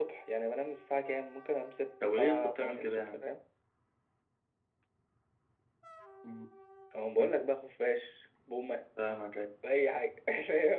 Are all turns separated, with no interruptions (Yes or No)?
No